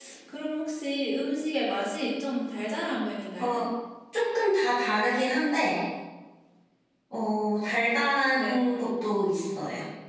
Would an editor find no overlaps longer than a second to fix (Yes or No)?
Yes